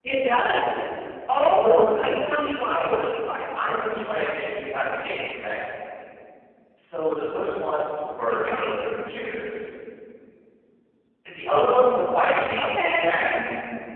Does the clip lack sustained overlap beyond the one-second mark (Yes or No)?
No